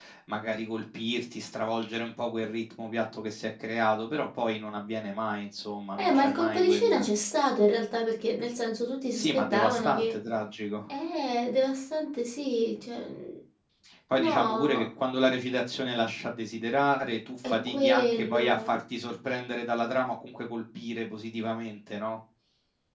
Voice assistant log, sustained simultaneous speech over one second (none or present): present